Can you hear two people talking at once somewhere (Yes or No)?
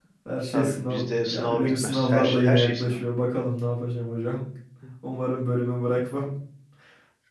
Yes